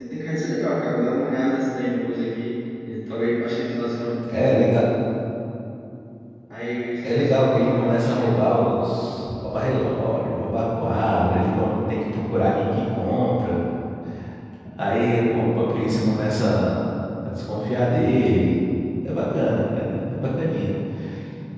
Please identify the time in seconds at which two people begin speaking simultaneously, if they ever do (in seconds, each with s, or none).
7.0 s